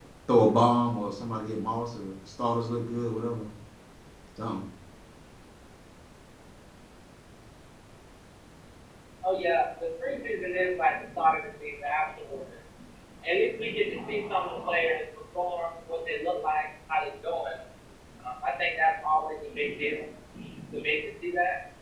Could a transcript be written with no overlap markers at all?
Yes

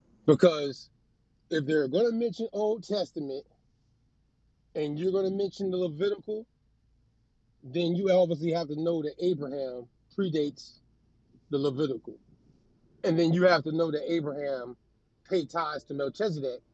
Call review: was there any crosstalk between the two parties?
No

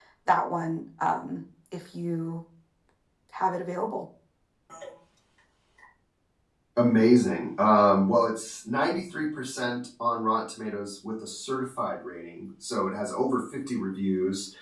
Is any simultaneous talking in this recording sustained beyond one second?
No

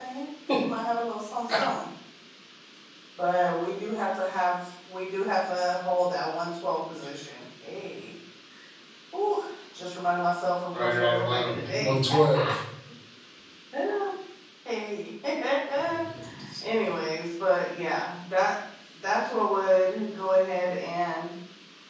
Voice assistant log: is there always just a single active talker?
No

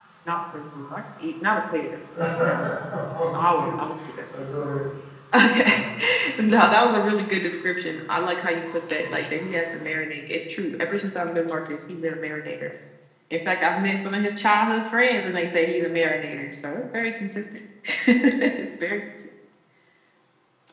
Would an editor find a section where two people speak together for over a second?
No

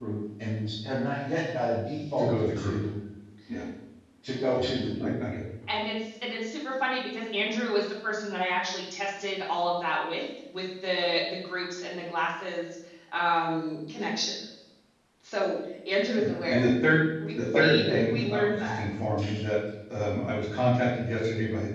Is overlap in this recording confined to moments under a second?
No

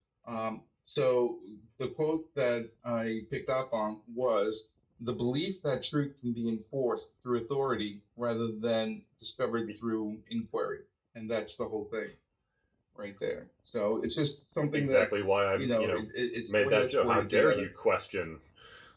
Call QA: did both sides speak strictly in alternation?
No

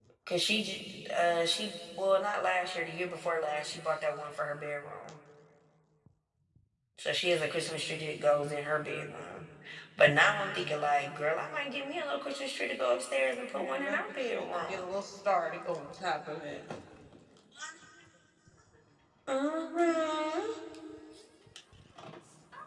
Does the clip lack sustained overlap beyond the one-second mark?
No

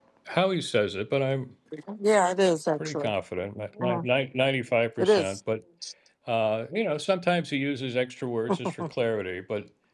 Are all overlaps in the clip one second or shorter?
Yes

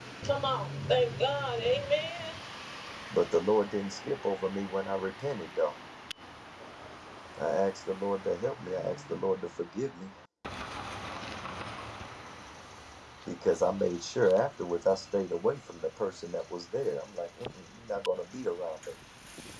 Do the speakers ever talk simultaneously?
No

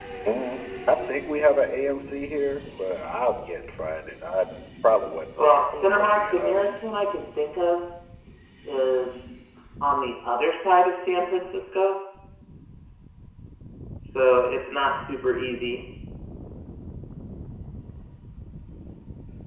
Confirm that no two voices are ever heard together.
No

